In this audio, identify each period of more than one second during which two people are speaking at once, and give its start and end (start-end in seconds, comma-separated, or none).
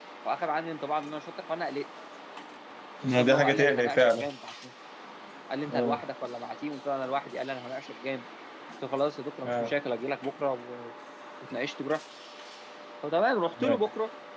3.0-4.3